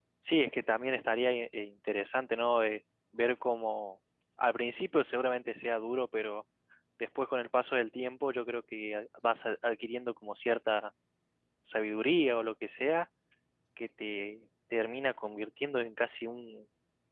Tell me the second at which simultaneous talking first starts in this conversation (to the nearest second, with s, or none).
none